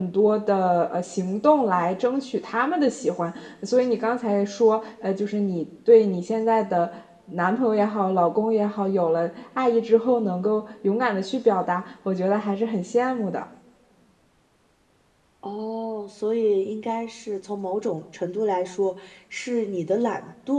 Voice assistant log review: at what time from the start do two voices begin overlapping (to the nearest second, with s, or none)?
none